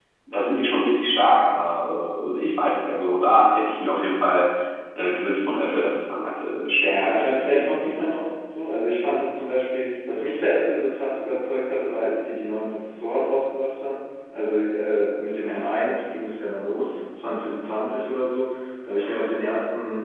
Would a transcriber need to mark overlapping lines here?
Yes, from 6.9 s

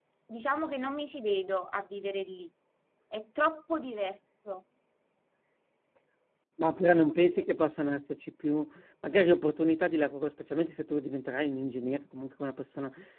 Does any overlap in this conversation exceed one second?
No

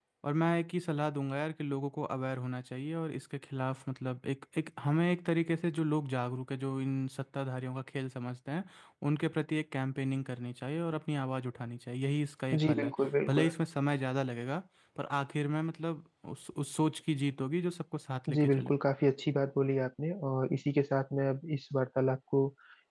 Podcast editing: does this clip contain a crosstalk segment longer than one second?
No

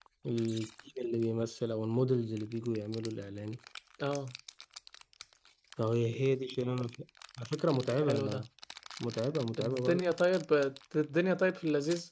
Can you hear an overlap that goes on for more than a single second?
No

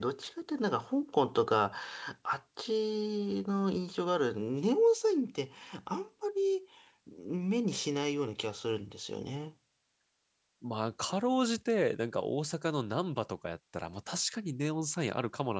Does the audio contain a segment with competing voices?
No

